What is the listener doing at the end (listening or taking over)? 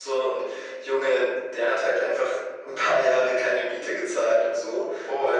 listening